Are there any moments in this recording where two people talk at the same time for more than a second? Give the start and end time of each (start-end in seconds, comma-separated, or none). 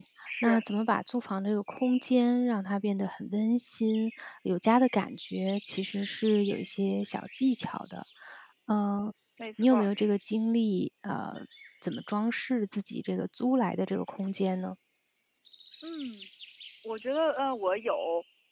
none